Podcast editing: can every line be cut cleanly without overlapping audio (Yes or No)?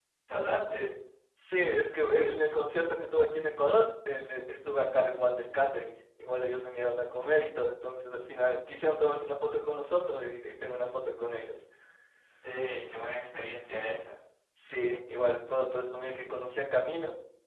Yes